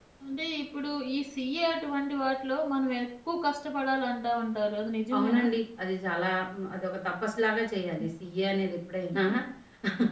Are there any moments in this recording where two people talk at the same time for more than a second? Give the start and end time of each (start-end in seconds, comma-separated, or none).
none